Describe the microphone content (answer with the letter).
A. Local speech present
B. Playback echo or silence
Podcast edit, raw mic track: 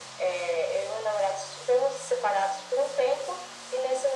B